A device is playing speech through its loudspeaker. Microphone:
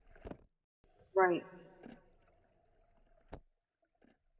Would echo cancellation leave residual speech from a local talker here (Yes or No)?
Yes